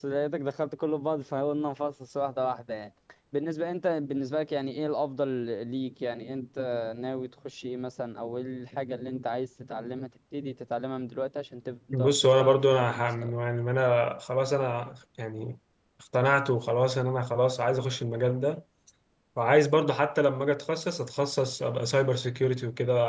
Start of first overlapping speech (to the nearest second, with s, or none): 12 s